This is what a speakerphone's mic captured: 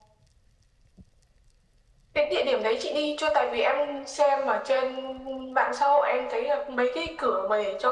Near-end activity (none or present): none